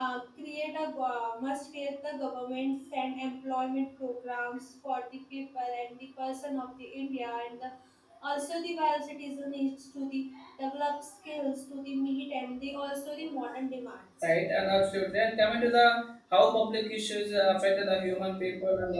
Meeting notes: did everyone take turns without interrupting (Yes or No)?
Yes